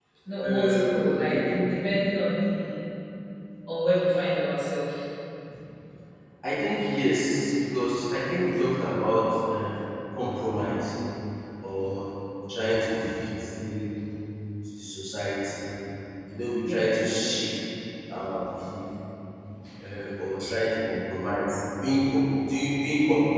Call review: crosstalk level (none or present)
present